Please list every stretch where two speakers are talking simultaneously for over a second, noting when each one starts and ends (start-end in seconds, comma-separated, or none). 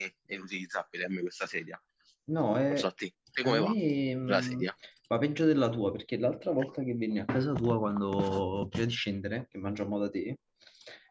none